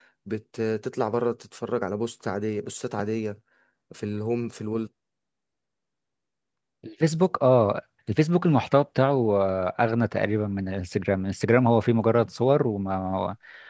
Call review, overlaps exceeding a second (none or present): none